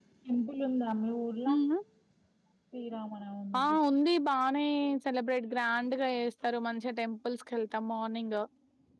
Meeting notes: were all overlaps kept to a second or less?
Yes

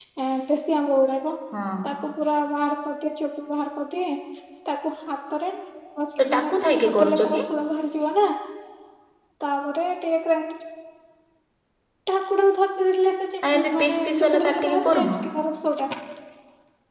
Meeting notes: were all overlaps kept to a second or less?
No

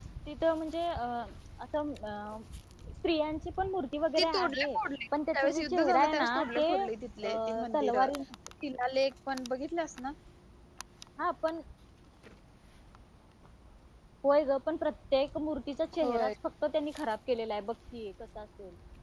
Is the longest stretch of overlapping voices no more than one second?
No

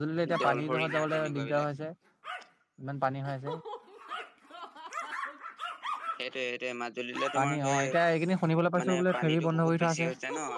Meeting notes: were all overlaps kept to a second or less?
No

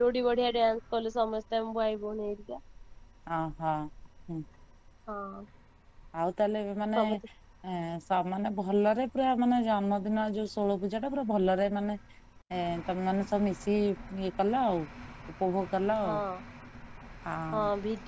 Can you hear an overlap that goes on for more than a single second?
No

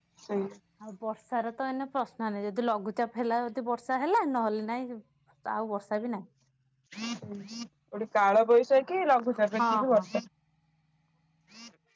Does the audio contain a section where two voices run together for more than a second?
No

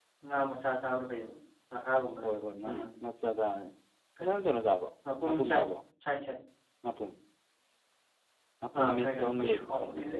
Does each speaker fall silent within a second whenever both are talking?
No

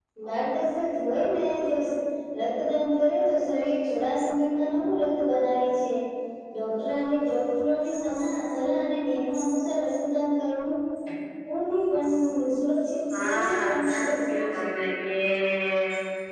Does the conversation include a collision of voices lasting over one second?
Yes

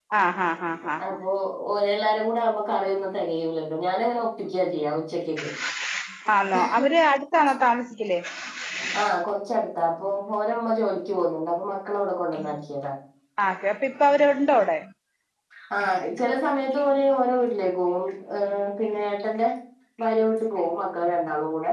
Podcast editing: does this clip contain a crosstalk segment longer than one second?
No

